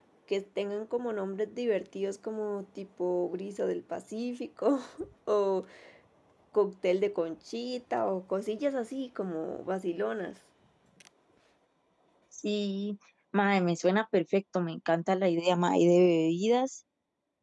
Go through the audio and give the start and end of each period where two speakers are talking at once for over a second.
none

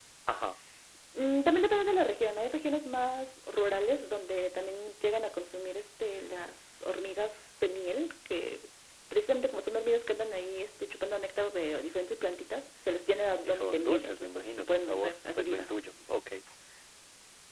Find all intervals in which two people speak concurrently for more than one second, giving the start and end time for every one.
13.3-15.7

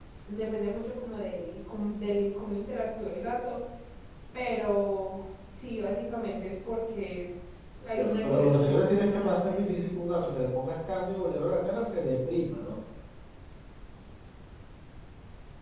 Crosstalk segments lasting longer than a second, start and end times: 7.8-9.8

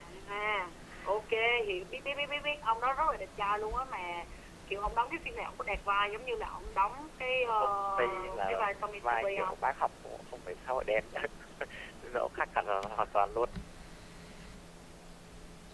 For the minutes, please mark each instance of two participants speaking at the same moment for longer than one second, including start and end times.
7.4-9.6

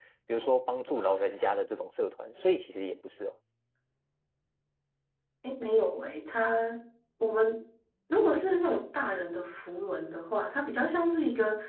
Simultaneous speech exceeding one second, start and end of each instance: none

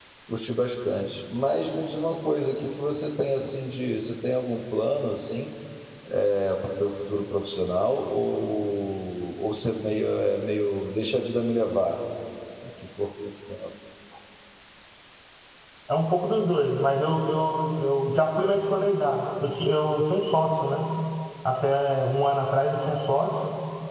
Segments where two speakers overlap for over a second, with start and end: none

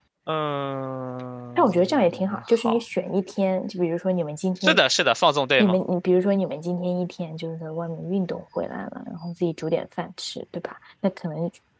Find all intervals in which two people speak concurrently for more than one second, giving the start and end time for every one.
1.6-2.8

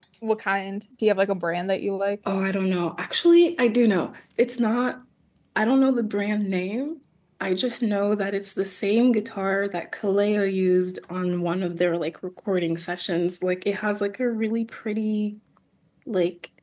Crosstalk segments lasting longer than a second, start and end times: none

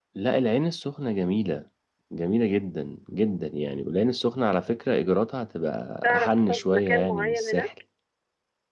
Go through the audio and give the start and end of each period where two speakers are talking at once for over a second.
6.0-7.7

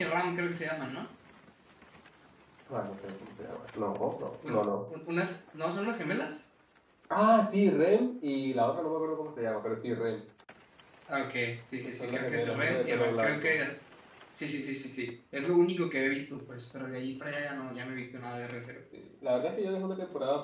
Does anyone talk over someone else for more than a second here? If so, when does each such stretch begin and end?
12.0-13.5

